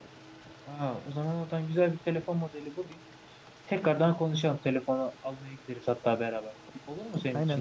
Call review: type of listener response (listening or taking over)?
taking over